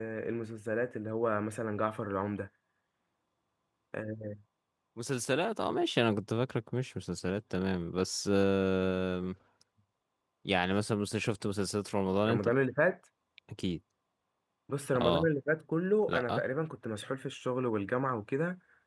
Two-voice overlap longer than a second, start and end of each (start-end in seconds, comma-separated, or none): none